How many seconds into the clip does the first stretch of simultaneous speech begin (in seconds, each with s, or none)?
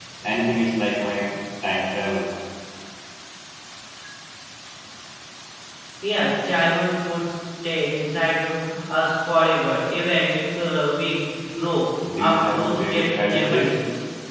12.0 s